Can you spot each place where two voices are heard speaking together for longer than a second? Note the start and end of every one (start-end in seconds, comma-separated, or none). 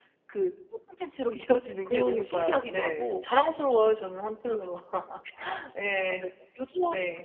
1.9-3.2